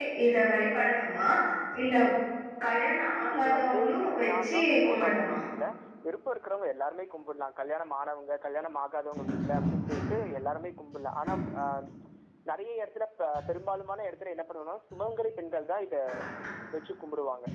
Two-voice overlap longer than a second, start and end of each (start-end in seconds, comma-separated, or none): 3.4-5.3